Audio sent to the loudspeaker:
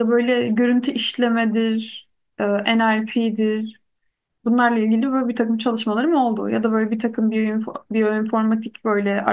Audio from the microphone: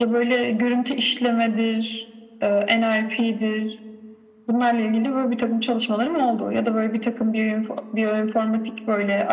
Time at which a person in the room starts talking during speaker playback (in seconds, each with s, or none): none